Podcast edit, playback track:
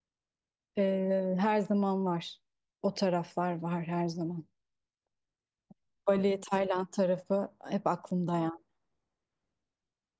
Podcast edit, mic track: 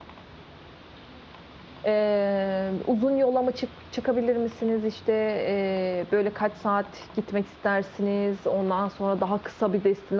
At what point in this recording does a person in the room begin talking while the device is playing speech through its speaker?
1.8 s

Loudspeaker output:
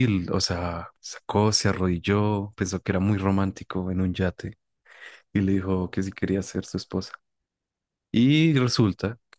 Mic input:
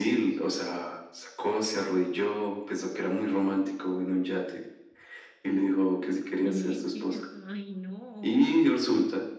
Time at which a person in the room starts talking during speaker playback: 6.4 s

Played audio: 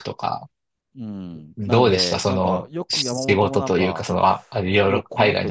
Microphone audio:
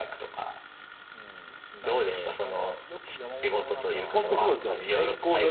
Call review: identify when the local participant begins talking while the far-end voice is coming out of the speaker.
4.0 s

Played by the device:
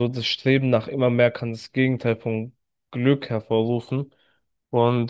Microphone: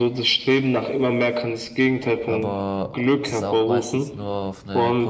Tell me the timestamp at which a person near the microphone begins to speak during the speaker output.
2.2 s

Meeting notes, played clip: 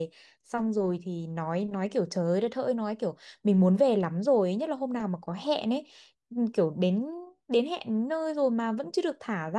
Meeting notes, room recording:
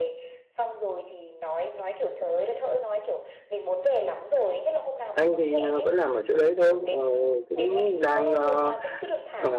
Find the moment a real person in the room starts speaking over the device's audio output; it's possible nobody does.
5.1 s

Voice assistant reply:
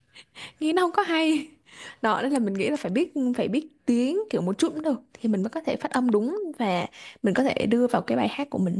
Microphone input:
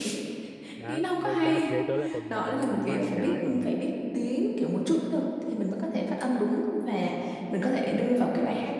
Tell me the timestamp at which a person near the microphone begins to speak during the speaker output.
0.8 s

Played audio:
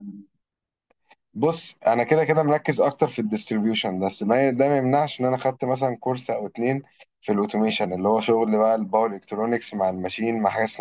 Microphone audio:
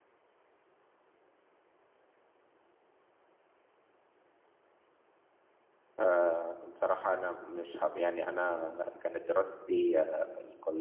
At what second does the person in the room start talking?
6.0 s

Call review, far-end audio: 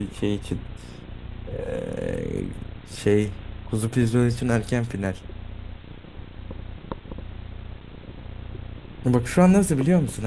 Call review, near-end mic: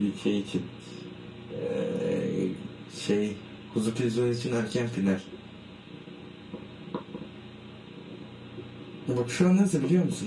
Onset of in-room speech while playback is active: none

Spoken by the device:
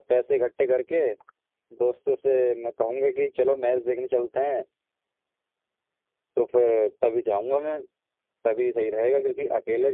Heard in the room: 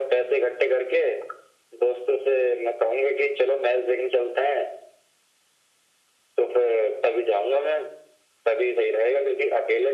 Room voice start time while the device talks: none

